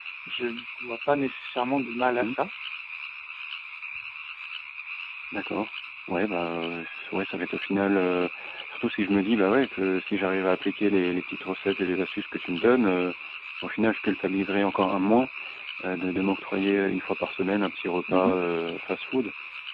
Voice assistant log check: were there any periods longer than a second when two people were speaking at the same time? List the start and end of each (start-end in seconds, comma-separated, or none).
none